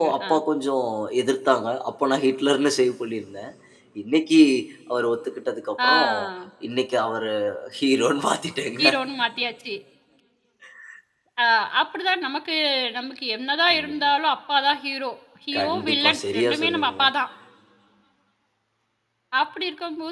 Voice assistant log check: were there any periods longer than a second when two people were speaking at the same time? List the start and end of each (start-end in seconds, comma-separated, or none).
15.6-17.1